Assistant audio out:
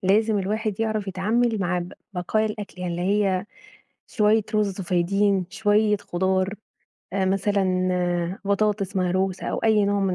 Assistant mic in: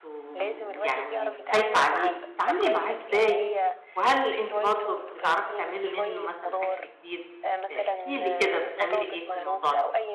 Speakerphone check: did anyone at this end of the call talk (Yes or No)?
Yes